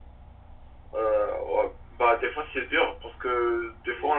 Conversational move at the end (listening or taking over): listening